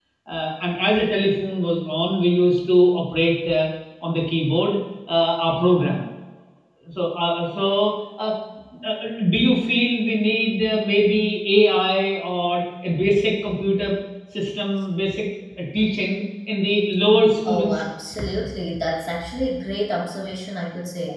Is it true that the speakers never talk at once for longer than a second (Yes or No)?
Yes